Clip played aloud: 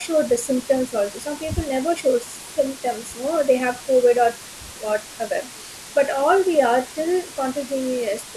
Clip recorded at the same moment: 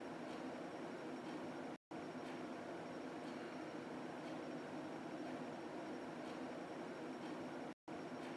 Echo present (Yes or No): No